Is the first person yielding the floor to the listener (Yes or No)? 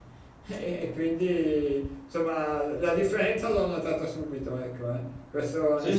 No